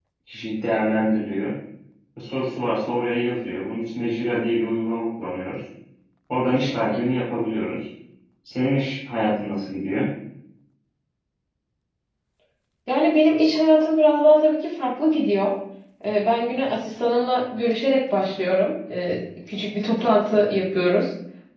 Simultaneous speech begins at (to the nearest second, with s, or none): none